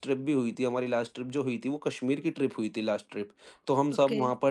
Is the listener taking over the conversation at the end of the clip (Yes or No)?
No